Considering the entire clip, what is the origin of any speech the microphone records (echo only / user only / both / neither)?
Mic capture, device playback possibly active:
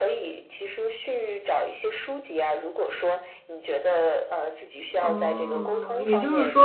both